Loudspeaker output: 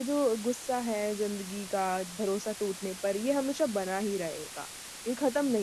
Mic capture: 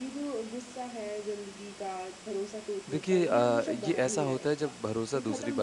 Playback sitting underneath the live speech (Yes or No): Yes